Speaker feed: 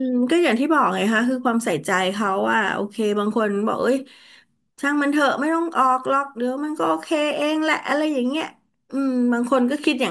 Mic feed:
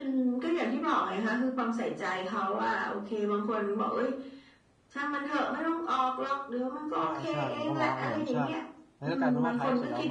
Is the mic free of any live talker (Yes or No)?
No